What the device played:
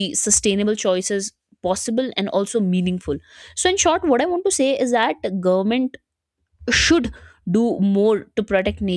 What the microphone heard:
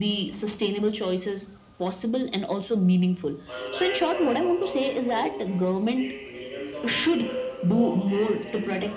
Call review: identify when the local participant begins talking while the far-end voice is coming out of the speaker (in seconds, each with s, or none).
3.5 s